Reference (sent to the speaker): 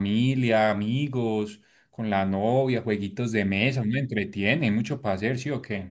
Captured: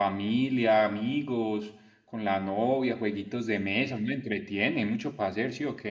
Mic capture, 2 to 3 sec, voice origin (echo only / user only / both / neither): echo only